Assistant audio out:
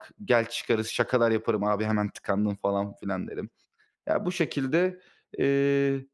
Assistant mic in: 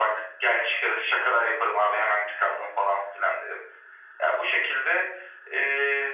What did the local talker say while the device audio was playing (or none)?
none